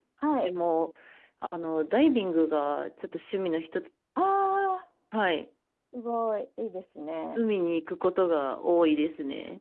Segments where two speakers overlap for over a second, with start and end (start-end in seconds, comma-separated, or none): none